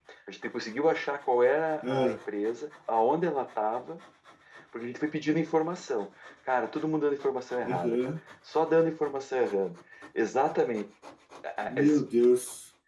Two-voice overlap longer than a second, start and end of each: none

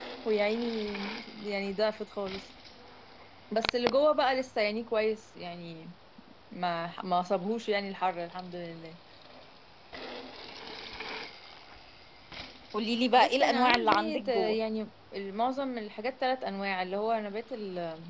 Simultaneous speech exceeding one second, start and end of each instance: 13.2-14.6

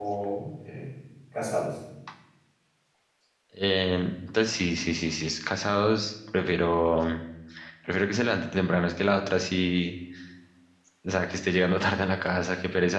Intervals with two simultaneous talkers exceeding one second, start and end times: none

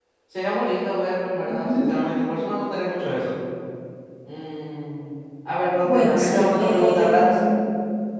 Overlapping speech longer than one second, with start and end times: 5.8-7.5

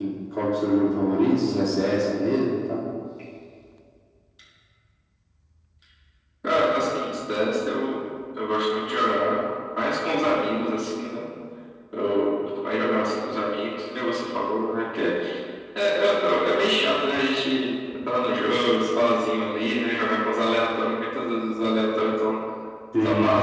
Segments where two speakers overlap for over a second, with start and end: none

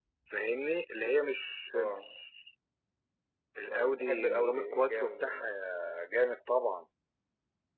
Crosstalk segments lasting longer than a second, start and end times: 3.6-5.6

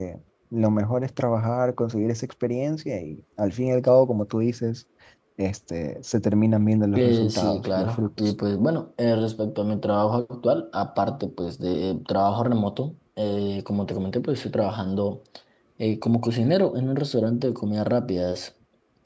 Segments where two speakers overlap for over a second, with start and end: 7.0-8.2

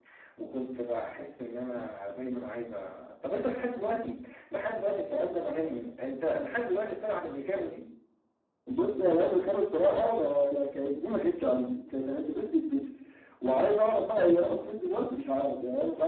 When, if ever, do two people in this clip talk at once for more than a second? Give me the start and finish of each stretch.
none

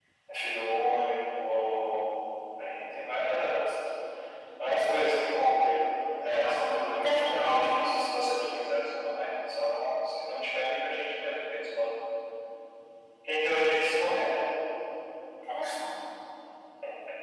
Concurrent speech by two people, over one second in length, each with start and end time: 6.4-7.7

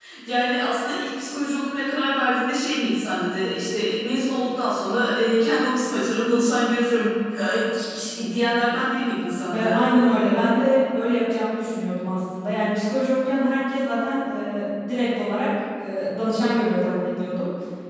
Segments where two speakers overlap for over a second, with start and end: none

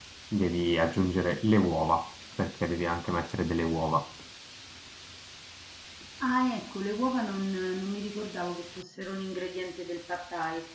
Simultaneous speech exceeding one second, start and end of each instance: none

